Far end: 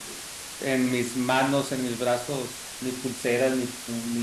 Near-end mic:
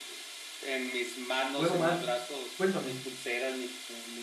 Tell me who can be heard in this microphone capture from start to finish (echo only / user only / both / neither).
both